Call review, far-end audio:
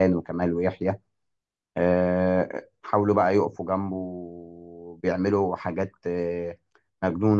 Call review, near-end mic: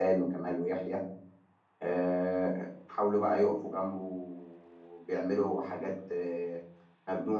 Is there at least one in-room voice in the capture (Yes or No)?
No